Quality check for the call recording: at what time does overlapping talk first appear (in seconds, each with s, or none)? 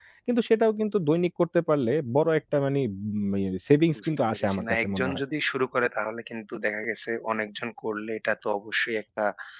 4.0 s